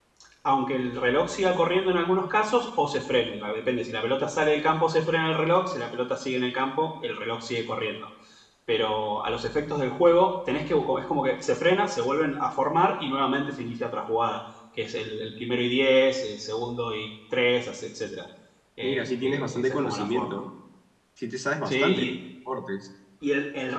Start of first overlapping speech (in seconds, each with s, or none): 18.8 s